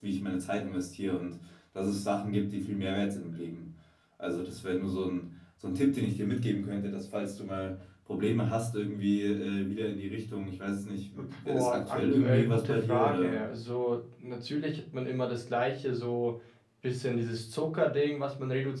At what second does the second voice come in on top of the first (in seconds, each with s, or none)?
11.4 s